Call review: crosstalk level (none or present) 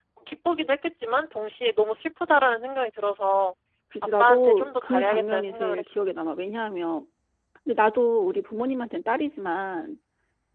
present